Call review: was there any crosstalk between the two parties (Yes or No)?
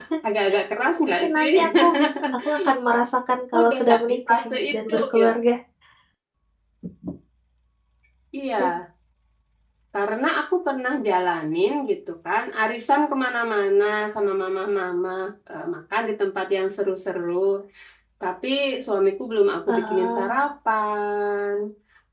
Yes